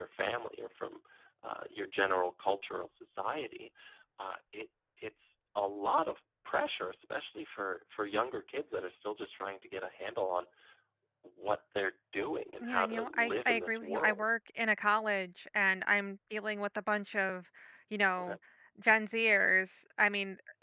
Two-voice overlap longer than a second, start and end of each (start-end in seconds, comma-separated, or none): 12.6-14.2